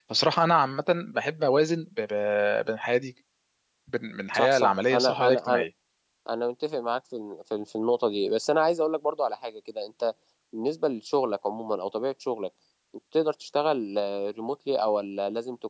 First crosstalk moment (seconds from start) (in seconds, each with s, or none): 4.3 s